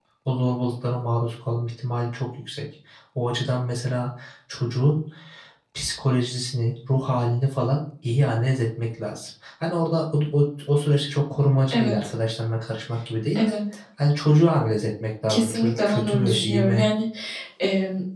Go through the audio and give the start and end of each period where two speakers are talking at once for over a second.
15.3-16.9

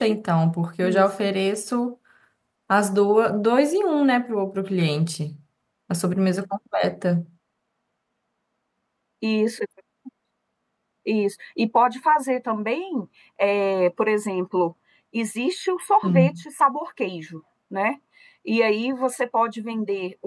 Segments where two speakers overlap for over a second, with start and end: none

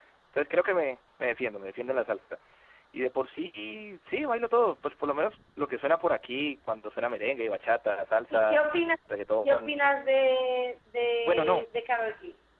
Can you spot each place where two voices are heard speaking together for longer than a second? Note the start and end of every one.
none

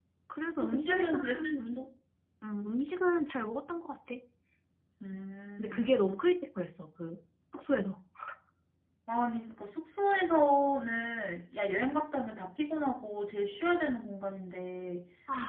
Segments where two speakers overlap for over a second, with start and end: 0.6-1.8

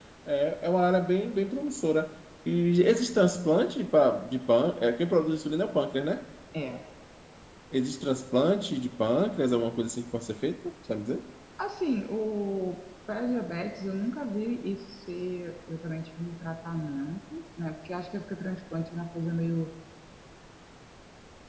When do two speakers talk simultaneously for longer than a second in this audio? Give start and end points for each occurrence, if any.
none

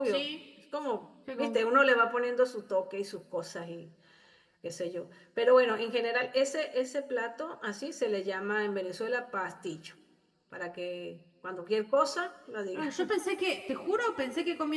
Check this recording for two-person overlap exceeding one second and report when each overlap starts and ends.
none

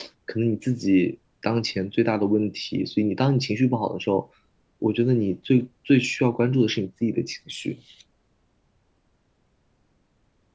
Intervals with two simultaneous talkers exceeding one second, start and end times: none

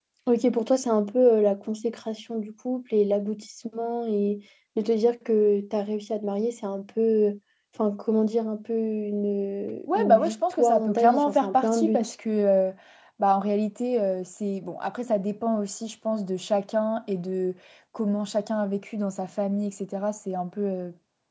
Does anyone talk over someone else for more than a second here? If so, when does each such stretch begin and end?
9.9-12.1

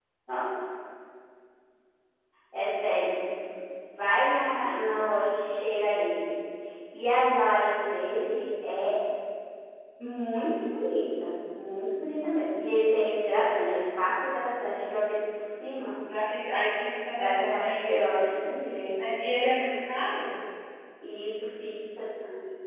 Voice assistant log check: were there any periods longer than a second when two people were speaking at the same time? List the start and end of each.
17.1-18.3

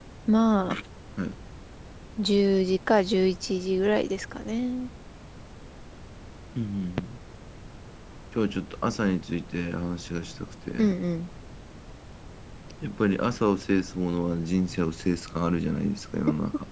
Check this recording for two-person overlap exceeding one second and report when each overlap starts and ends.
none

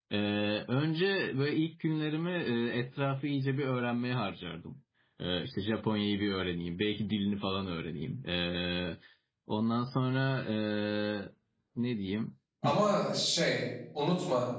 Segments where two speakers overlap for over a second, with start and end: none

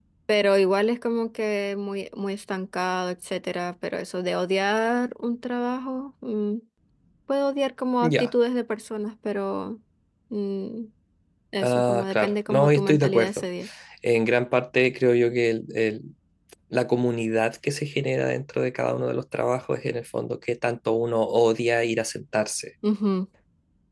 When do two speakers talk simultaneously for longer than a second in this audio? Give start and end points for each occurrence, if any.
11.6-13.3

